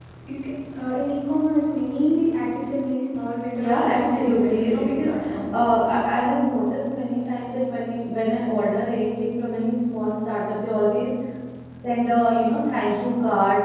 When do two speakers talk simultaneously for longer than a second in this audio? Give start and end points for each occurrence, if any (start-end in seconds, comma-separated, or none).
3.6-5.1